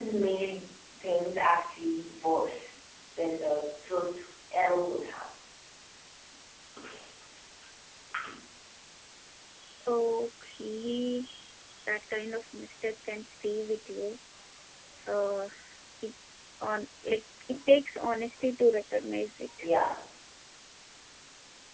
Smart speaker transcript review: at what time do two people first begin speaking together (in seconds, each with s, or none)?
none